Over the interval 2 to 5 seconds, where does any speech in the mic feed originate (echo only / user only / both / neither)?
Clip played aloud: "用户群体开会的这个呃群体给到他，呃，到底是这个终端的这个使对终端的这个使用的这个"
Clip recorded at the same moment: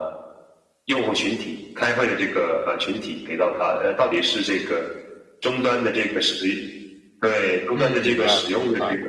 echo only